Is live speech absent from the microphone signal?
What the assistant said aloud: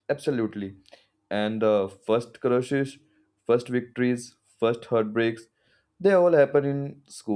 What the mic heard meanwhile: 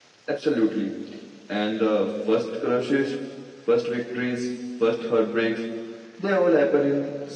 Yes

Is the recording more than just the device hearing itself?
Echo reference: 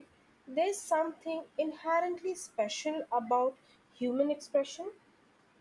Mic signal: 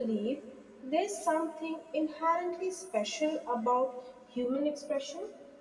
No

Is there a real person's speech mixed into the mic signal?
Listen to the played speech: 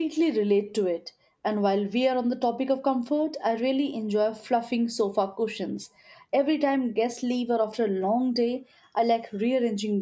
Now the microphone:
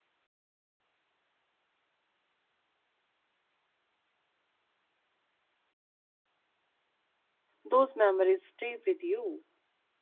Yes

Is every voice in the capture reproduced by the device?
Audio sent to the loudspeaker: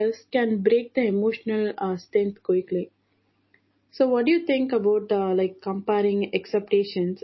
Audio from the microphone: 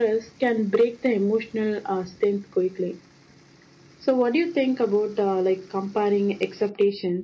Yes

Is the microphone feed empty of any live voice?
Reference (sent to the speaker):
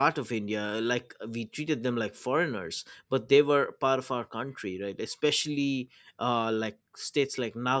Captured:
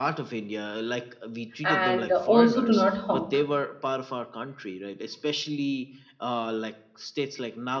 No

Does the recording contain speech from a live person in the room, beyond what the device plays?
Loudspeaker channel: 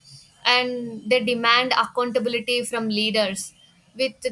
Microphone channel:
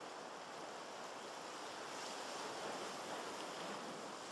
No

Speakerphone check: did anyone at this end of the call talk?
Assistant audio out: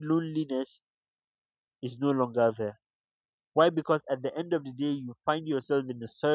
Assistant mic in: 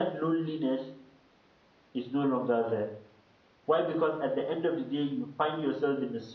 No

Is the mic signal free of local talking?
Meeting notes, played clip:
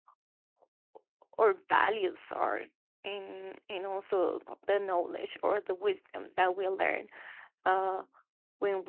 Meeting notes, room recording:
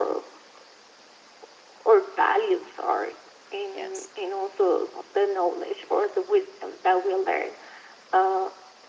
No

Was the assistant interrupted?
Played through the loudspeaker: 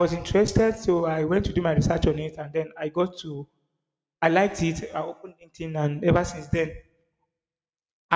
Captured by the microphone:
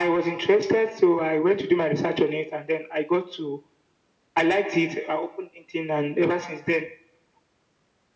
No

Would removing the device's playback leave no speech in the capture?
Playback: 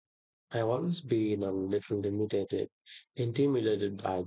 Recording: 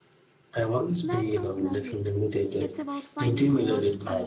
No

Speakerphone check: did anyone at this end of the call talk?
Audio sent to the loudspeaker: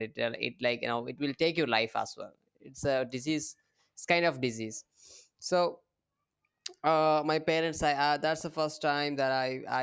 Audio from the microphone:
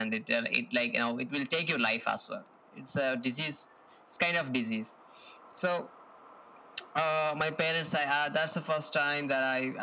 No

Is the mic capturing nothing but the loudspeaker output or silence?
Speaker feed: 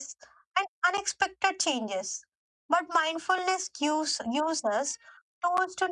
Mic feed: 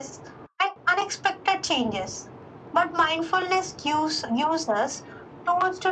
Yes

